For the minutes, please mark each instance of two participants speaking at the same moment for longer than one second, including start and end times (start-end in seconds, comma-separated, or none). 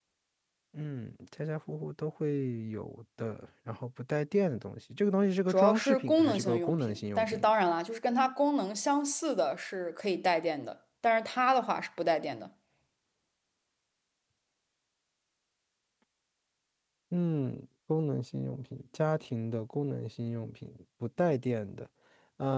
5.5-7.5